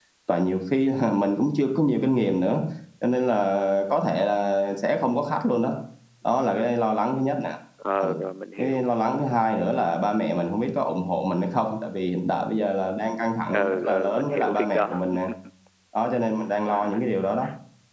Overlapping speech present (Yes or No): Yes